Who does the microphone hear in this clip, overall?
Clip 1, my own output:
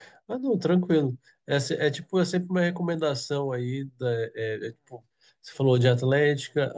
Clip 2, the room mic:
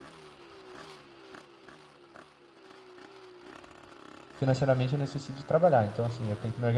user only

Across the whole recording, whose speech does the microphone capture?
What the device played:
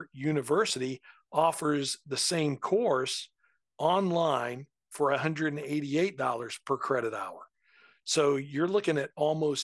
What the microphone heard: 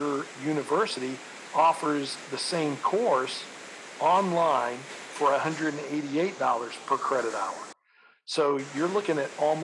echo only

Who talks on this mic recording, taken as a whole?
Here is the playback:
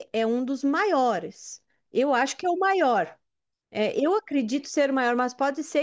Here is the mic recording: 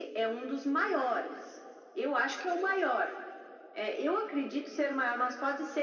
echo only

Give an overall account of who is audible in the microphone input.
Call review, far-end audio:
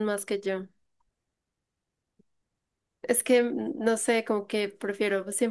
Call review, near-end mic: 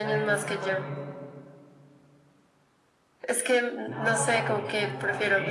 both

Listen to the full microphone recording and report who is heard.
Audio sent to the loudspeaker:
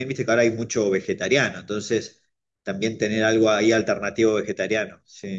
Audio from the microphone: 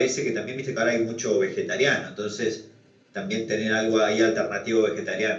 echo only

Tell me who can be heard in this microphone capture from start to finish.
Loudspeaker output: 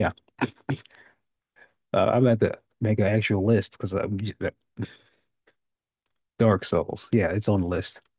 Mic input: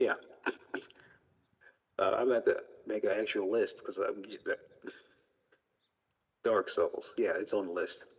echo only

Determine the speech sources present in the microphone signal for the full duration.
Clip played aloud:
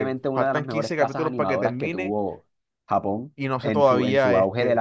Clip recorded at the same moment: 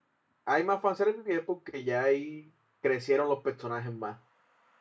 user only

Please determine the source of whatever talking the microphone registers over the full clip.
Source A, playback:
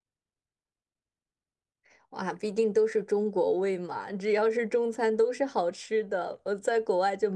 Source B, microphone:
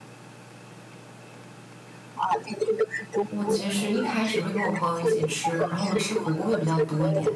both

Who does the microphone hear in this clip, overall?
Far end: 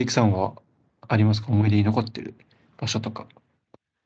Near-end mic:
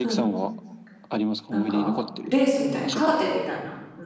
both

